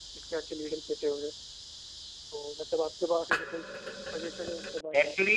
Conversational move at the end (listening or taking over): taking over